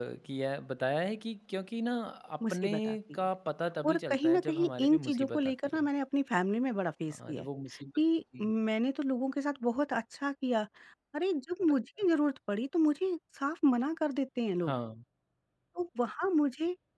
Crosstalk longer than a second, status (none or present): present